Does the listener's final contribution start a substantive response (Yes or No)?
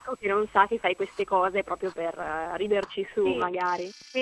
Yes